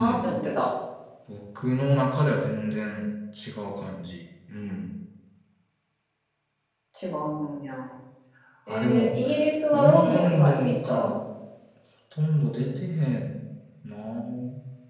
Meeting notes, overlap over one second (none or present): present